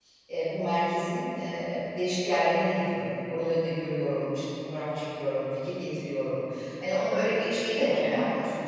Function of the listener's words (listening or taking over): listening